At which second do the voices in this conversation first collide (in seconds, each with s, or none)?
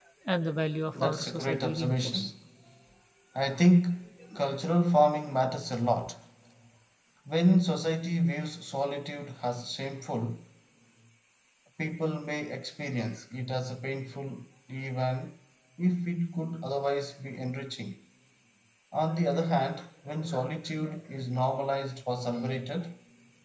1.0 s